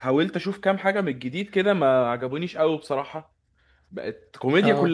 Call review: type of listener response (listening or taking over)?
listening